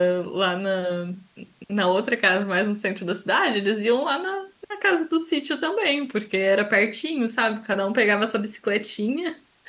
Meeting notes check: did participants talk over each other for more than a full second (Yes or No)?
No